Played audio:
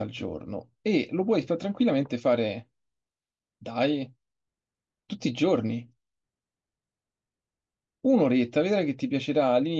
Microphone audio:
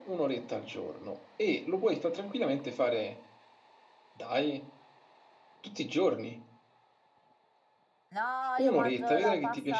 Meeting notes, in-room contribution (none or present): present